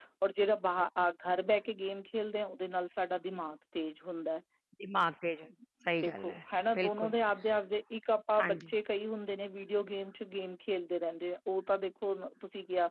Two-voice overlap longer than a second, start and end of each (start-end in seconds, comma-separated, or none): none